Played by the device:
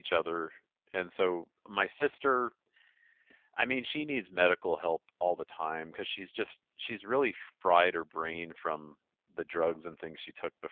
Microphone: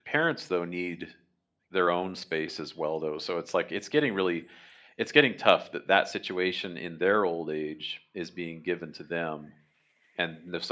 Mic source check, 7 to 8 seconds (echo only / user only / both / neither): user only